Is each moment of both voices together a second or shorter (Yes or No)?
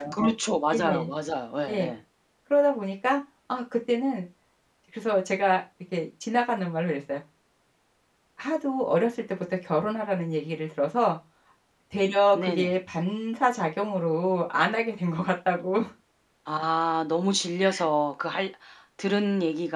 Yes